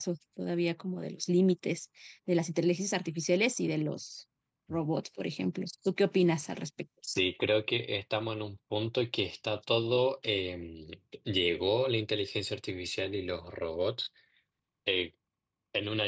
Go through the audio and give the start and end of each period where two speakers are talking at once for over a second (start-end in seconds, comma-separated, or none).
none